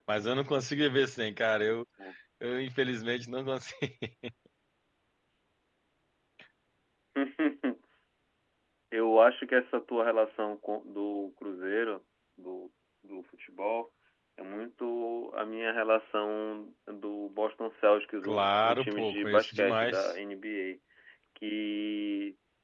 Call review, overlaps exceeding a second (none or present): present